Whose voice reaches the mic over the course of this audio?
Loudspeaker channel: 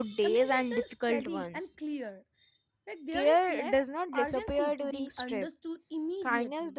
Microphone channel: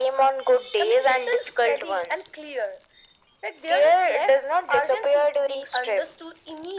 echo only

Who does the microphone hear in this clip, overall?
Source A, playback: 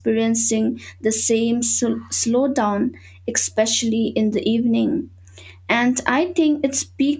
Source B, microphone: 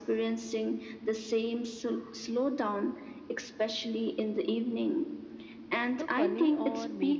both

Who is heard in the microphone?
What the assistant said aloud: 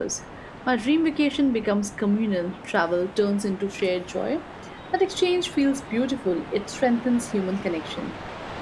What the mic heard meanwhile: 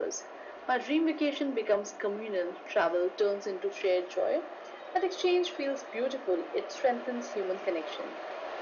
echo only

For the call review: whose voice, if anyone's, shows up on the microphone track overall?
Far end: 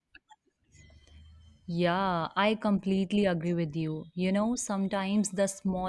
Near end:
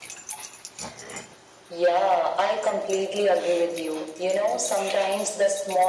echo only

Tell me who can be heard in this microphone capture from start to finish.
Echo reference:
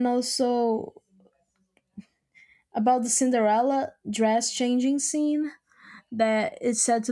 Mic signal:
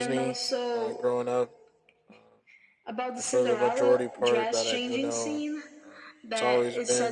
both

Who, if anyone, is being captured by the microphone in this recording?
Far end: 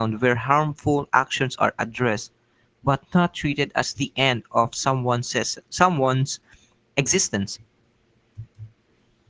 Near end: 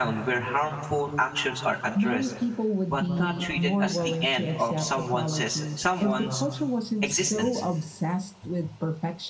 both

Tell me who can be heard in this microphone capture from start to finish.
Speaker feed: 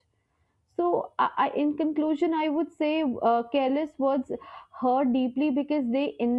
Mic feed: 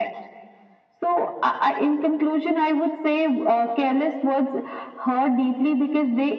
echo only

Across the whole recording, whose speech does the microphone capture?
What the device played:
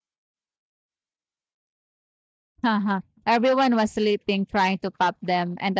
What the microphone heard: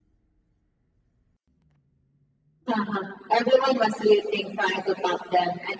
echo only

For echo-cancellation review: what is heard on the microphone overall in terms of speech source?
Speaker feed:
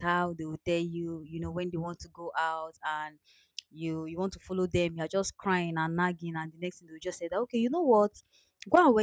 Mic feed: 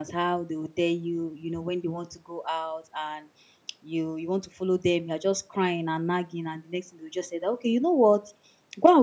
echo only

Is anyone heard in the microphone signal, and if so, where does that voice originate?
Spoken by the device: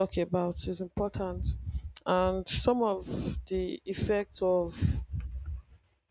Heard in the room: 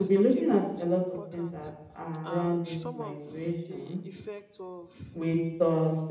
both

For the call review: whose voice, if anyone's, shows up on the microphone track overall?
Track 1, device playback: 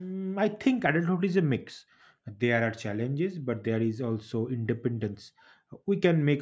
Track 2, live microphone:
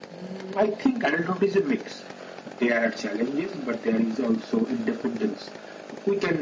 echo only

